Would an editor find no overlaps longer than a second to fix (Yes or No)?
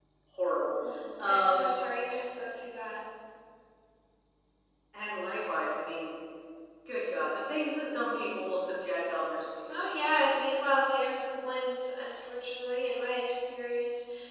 Yes